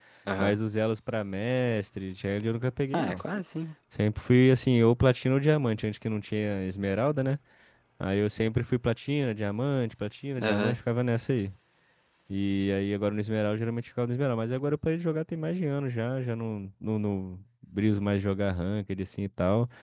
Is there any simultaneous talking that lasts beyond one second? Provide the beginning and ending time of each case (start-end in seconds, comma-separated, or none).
none